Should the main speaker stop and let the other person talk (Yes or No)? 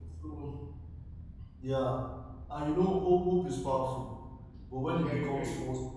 No